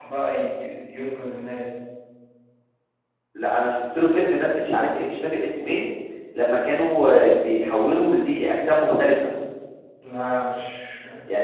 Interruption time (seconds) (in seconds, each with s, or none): none